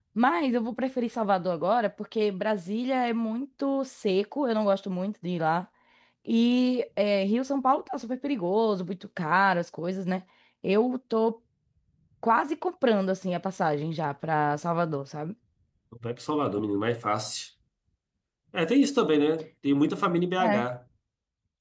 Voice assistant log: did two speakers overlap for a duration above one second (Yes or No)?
No